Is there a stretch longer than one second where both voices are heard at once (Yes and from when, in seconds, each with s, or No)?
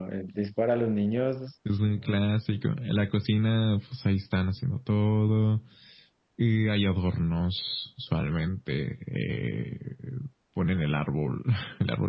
No